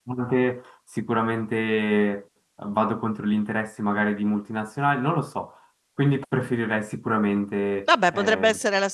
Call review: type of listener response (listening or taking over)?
taking over